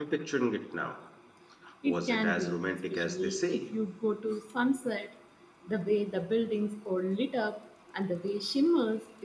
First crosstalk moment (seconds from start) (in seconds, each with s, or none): 1.9 s